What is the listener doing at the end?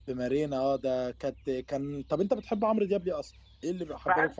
taking over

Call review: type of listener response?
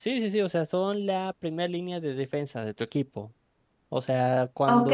taking over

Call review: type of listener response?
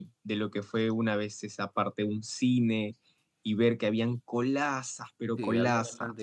taking over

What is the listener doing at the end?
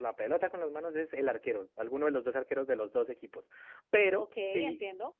listening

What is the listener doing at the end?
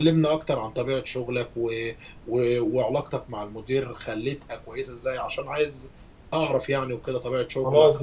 taking over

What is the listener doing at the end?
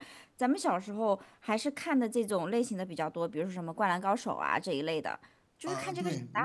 taking over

